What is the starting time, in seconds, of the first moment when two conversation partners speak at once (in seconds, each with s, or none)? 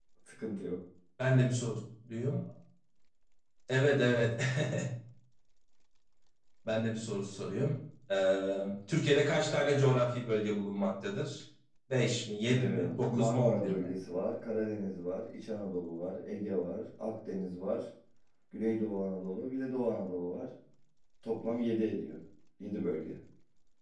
12.5 s